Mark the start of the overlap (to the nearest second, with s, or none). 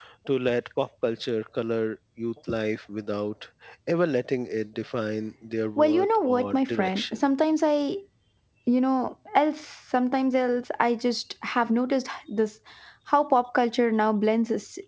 6 s